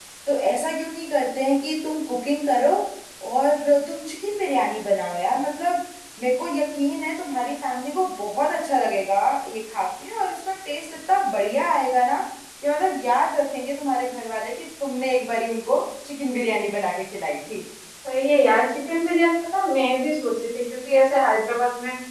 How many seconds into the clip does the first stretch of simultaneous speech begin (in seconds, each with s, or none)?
none